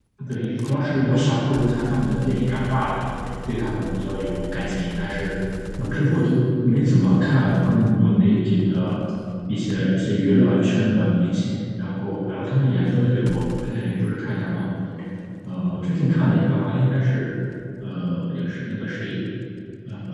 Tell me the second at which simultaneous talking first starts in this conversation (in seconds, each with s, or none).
none